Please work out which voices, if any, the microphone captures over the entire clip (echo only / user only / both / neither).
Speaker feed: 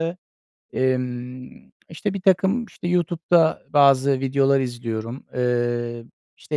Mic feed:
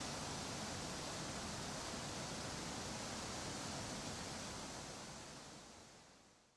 neither